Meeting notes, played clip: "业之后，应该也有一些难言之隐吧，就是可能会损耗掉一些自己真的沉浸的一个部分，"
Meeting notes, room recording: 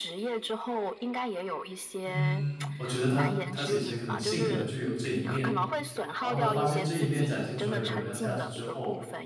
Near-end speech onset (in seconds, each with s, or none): 2.1 s